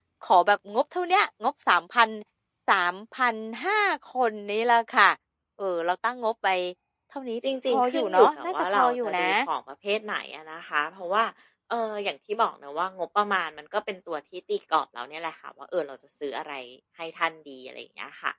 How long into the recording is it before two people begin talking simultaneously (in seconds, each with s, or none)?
7.7 s